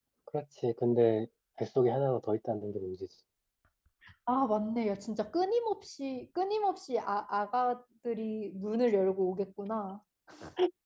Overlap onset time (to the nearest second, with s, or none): none